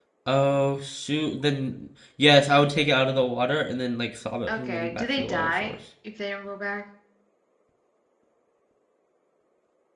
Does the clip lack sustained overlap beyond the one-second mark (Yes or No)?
No